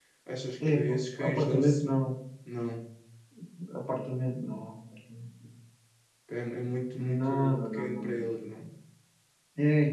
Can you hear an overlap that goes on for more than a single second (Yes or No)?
Yes